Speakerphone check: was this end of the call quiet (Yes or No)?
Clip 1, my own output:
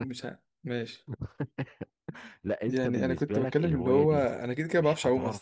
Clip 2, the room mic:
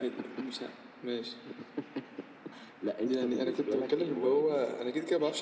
Yes